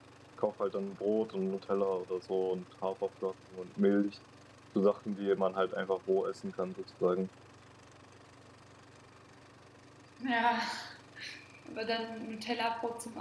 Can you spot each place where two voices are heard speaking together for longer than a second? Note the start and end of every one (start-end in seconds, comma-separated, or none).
none